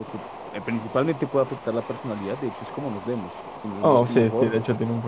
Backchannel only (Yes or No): No